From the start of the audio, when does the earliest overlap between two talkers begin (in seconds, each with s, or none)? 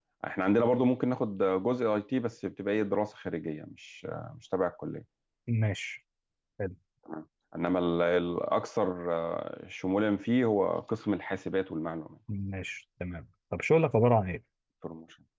none